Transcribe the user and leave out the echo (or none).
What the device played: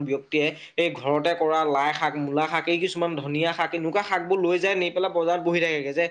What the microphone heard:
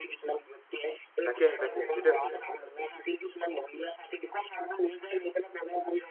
তাকেহে তাকে সেইটোৱে কথা